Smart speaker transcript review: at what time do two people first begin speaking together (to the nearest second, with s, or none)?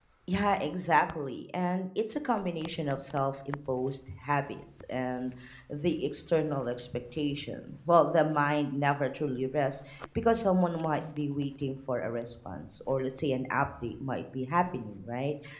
none